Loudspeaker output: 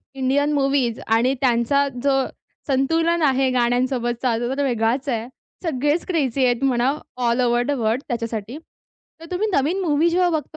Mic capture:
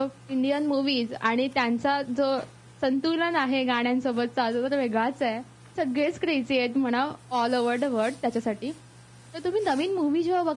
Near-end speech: none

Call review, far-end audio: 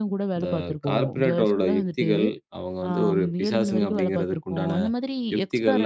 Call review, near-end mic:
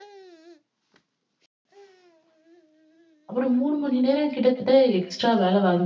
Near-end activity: present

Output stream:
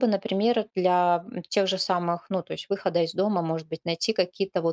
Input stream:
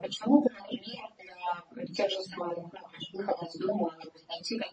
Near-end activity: none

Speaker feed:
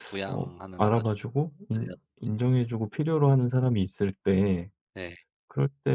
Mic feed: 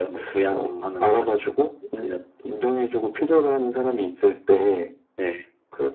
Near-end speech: none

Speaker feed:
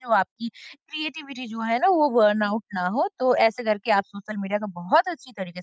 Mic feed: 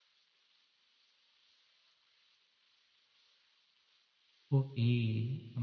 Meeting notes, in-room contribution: present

